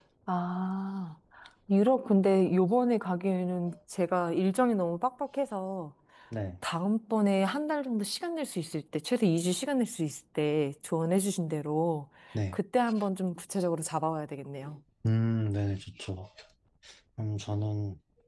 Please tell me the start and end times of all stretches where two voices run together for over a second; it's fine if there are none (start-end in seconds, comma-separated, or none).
none